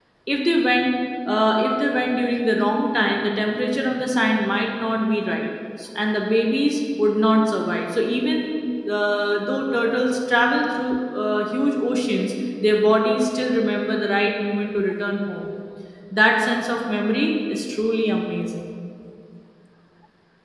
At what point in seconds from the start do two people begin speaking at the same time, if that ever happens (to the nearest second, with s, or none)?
none